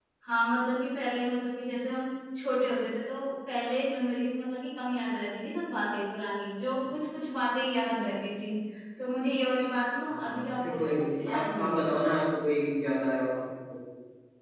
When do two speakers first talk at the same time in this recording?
10.1 s

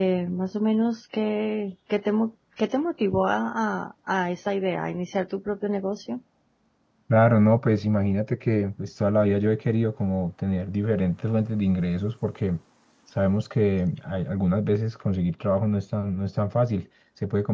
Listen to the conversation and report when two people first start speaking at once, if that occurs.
none

